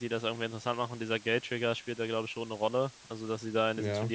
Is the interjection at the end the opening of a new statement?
No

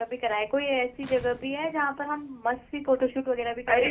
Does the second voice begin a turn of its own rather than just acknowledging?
Yes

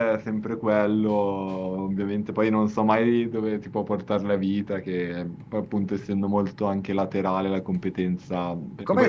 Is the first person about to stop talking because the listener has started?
Yes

